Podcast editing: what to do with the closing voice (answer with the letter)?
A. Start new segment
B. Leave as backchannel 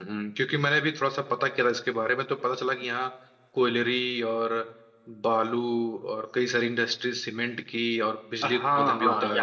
A